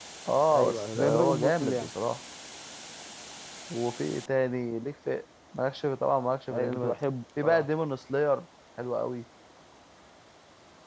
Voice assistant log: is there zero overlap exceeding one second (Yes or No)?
No